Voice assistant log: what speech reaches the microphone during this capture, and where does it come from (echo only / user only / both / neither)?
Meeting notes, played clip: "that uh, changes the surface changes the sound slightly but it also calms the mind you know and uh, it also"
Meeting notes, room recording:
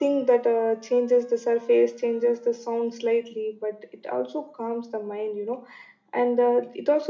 echo only